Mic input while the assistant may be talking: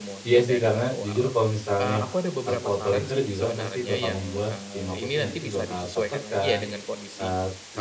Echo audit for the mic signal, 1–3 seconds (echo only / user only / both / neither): both